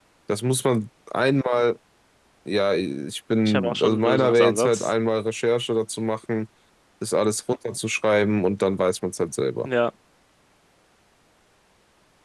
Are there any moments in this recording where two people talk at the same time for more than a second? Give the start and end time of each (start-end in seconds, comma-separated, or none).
3.4-4.9